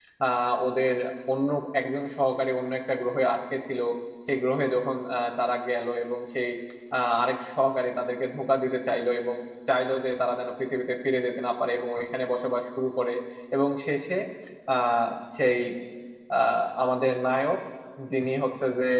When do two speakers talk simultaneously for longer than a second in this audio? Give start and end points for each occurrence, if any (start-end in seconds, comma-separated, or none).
none